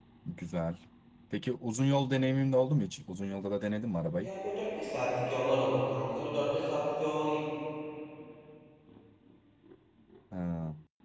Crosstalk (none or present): none